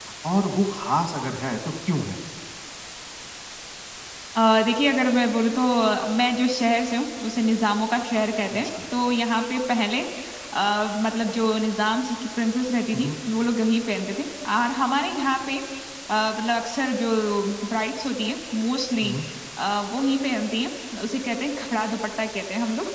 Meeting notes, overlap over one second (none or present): none